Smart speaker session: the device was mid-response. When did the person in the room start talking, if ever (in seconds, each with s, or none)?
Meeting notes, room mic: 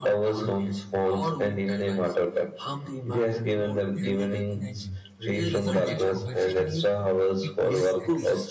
3.9 s